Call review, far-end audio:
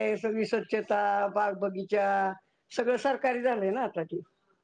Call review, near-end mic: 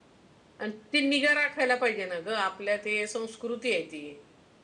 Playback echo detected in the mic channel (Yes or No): No